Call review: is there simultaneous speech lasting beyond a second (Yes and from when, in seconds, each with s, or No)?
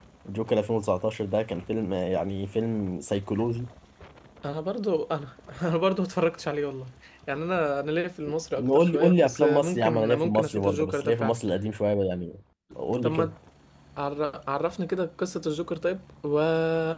Yes, from 8.6 s